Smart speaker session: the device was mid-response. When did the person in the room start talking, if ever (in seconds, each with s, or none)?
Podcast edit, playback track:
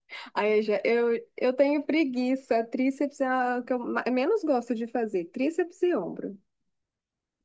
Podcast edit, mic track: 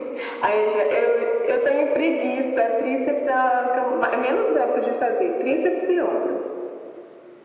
none